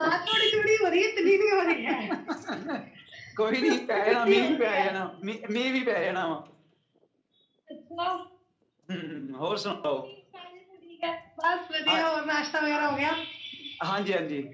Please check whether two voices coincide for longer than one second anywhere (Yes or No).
Yes